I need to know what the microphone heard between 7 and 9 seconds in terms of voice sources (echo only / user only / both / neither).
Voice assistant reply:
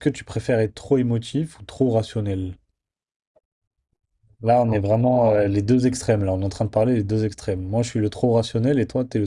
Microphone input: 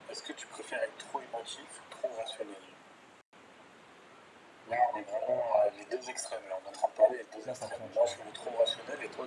both